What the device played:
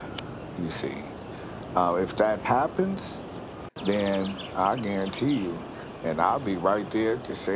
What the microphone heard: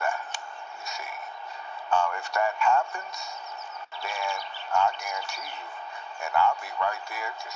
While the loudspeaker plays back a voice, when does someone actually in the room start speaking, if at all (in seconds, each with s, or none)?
none